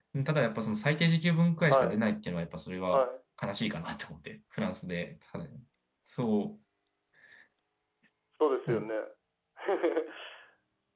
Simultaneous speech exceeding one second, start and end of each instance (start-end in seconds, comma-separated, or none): none